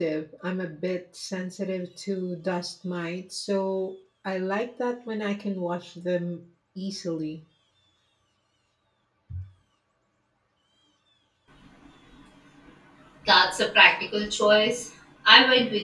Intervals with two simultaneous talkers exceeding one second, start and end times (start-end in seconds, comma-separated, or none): none